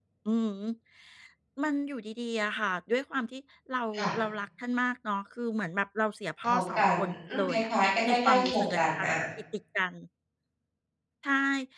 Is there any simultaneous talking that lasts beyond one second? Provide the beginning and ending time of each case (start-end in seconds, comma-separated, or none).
6.5-9.1